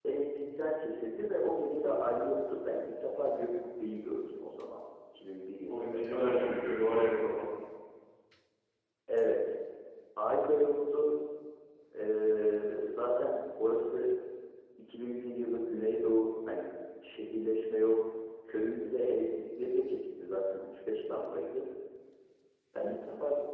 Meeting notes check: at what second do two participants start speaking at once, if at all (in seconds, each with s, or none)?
5.7 s